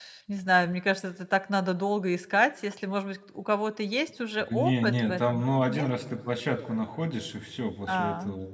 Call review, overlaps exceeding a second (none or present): present